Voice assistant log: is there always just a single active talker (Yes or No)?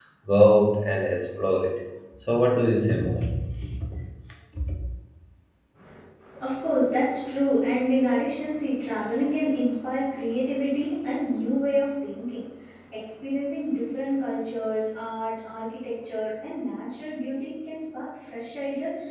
Yes